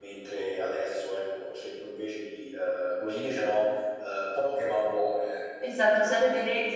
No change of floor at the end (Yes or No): No